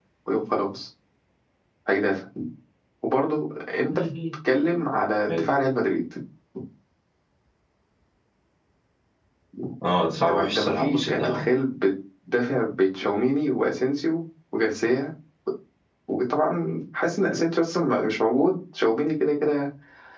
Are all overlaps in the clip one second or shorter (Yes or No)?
No